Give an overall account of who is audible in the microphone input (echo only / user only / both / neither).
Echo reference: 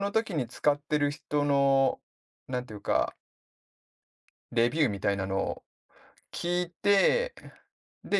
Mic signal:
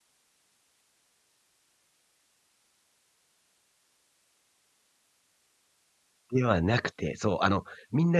user only